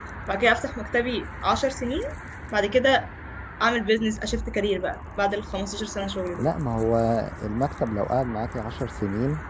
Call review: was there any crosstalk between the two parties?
No

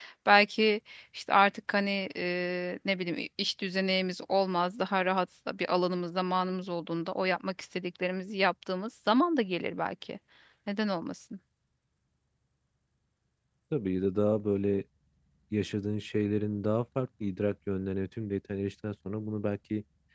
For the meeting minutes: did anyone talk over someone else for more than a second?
No

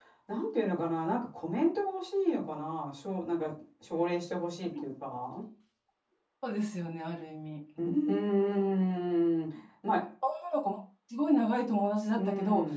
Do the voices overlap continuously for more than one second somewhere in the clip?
No

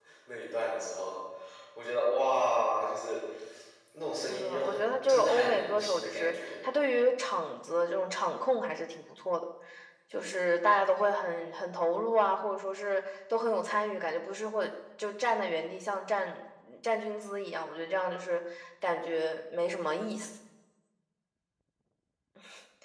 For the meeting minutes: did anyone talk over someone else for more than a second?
Yes, from 4.3 s

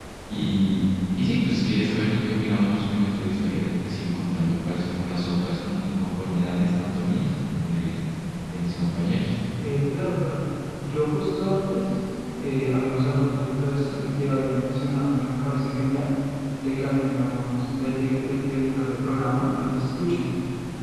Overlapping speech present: No

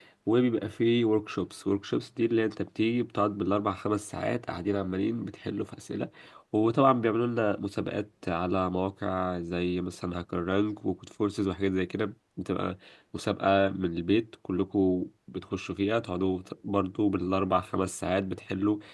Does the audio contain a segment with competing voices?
No

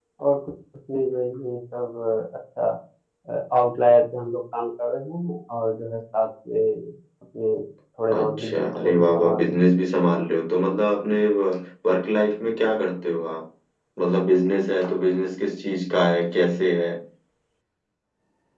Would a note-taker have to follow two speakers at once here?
Yes, from 8.1 s

